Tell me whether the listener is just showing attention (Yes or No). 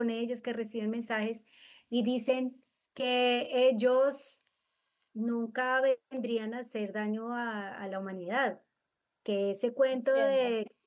Yes